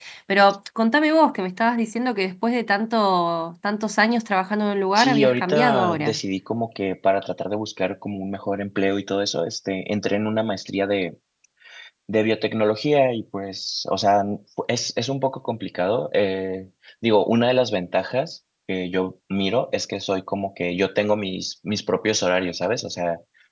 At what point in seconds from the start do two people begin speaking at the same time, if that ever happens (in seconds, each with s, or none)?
5.0 s